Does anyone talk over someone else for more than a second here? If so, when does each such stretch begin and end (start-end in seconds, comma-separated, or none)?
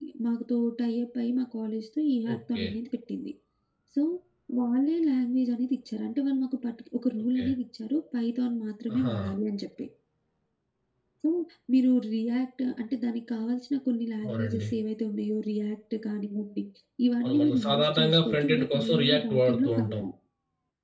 17.2-20.0